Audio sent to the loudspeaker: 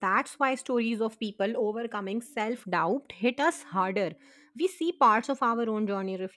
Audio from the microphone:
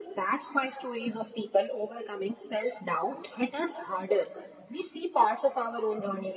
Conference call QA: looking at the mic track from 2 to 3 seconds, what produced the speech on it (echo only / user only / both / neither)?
echo only